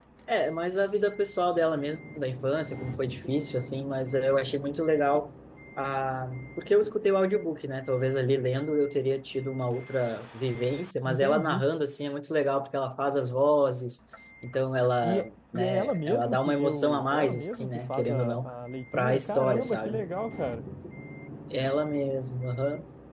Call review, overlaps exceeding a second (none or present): present